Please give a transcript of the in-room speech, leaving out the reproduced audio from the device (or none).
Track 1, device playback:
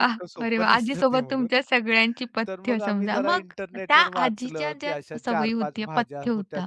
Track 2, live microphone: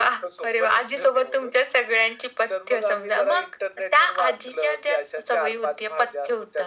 none